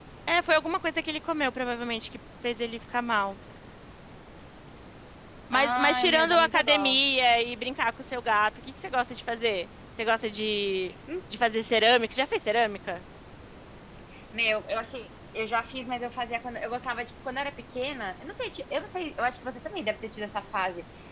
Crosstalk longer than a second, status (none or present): present